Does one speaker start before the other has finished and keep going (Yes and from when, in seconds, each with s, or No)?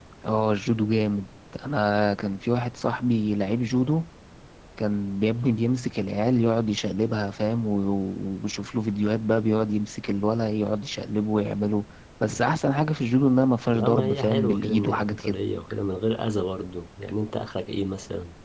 Yes, from 13.7 s